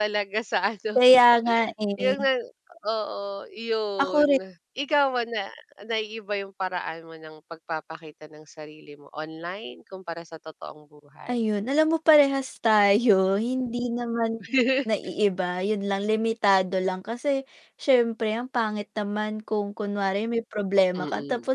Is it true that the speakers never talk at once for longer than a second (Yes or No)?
Yes